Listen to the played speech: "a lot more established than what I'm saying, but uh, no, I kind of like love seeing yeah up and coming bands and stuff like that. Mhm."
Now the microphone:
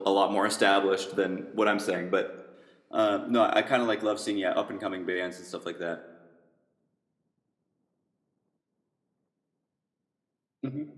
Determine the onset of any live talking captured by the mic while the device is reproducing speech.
none

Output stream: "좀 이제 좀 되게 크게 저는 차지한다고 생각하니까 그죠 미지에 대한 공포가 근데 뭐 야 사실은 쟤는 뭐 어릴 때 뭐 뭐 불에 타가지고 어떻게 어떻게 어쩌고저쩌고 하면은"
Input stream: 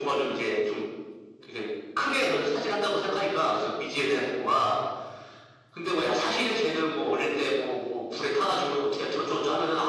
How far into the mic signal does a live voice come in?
none

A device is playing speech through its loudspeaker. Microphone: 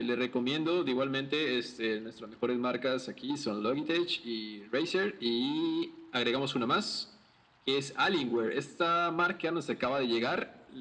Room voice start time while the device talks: none

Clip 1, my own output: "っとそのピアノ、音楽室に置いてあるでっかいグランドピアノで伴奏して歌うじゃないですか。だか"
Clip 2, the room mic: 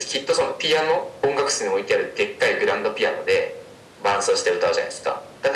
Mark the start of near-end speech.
none

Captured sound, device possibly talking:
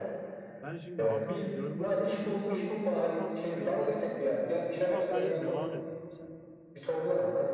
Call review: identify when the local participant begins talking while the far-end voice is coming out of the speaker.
1 s

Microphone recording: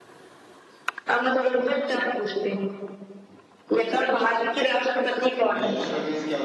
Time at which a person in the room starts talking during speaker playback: 5 s

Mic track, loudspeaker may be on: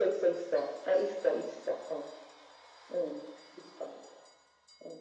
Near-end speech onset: none

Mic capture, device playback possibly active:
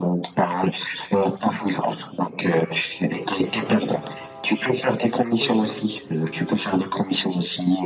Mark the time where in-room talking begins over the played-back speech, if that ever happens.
5 s

